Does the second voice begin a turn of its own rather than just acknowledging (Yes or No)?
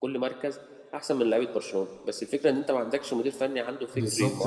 Yes